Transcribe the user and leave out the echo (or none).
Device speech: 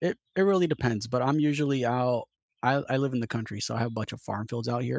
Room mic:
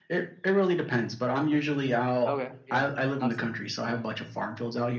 Okay, yeah, classic.